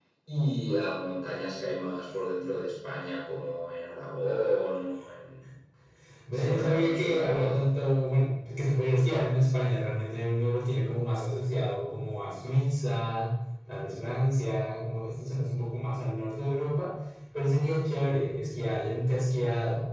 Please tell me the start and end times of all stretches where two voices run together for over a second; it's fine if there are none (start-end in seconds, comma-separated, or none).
6.3-7.5